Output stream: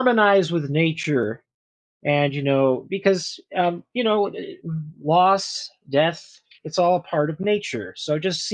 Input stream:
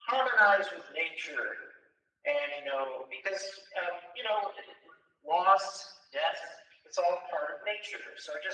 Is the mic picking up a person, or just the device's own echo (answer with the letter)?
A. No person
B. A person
A